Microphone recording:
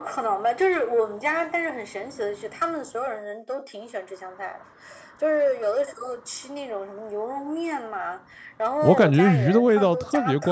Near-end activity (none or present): present